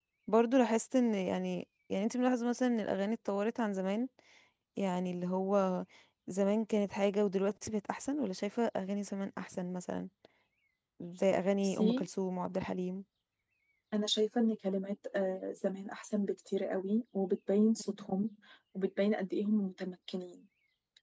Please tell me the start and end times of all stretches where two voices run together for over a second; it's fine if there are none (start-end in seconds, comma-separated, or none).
none